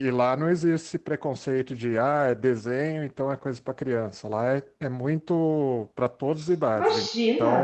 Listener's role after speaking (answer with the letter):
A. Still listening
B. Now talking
B